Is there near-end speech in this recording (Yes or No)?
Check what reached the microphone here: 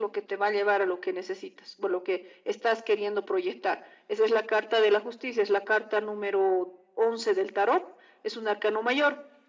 No